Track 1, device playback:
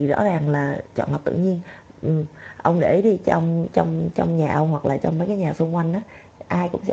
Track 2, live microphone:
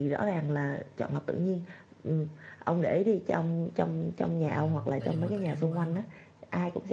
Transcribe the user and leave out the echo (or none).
à là do người ta yếu quá hả